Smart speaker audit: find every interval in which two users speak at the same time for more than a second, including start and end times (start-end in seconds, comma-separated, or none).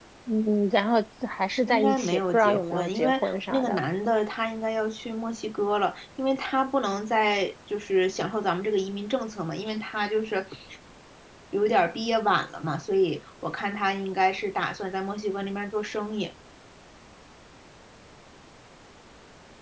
1.7-3.8